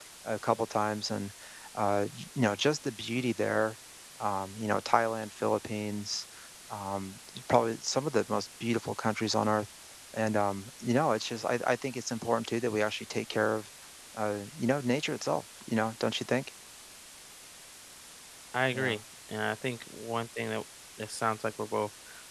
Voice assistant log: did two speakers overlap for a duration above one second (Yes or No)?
No